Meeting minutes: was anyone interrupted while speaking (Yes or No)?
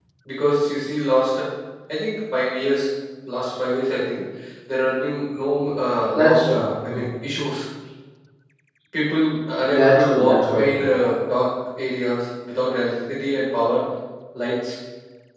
Yes